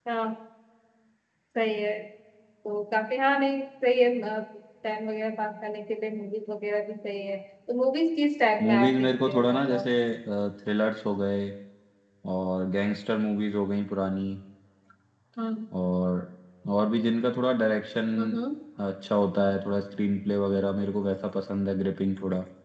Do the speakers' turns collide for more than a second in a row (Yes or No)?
Yes